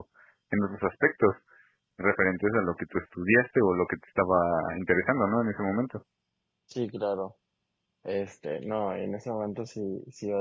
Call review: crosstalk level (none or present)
none